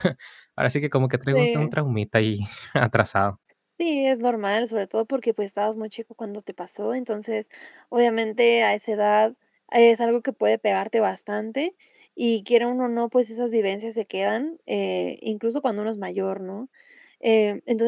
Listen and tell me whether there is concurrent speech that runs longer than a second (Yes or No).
No